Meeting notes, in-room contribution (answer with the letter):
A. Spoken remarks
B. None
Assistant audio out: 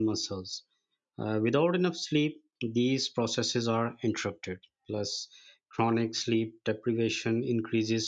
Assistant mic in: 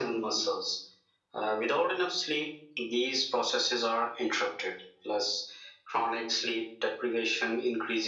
B